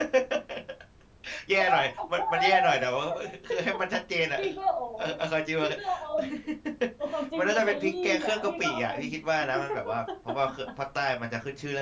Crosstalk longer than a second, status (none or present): present